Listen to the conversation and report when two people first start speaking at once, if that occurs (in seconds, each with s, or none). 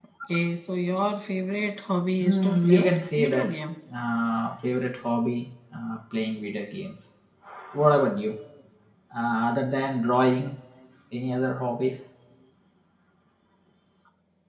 2.2 s